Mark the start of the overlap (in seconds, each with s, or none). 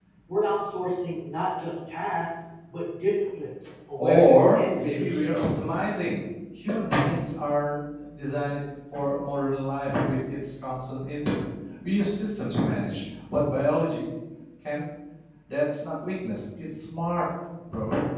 4.0 s